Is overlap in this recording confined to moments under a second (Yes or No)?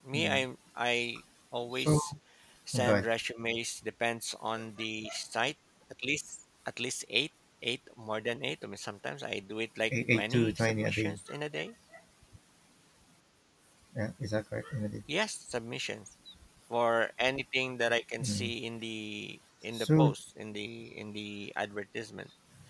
No